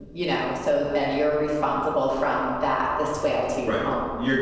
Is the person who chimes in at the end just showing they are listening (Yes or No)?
No